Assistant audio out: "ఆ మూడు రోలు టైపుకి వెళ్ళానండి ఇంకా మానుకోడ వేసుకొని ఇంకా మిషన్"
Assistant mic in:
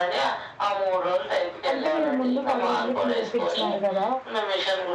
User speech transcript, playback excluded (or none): అంటే మీరు ముందు పది మందికి నేర్పిించ నారు కద